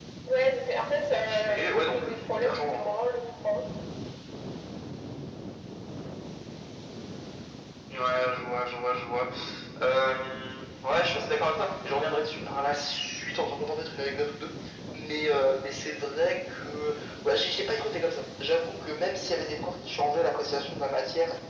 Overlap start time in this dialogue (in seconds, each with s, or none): 1.1 s